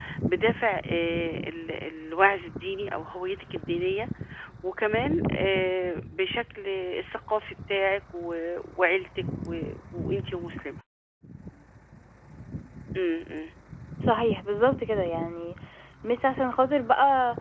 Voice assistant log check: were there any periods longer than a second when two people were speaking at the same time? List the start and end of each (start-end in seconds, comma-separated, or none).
none